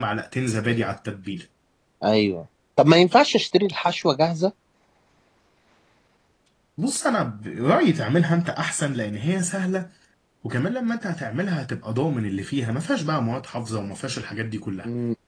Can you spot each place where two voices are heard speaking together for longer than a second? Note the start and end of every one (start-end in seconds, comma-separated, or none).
none